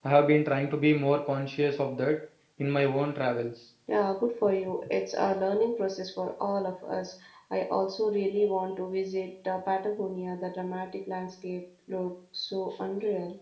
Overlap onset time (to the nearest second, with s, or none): none